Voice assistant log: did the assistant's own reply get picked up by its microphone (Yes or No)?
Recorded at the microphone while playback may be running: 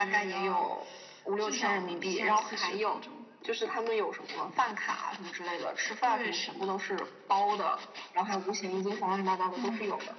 Yes